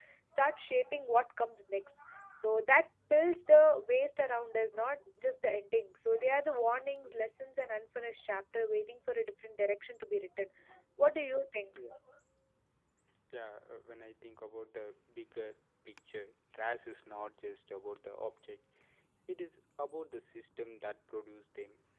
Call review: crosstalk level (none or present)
none